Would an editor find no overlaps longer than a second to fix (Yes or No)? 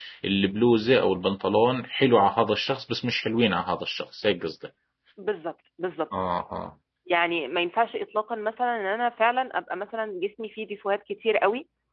Yes